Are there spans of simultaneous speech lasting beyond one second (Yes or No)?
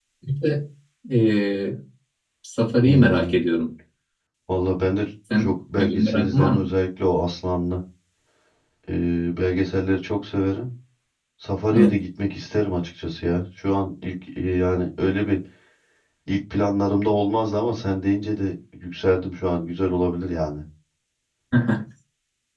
Yes